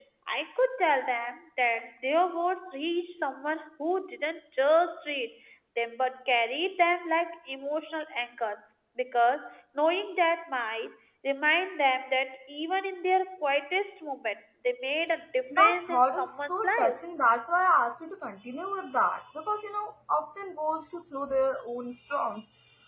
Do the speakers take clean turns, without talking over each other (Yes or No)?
No